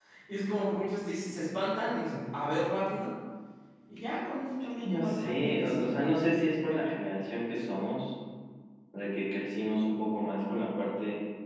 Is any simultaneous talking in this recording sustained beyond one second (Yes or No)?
Yes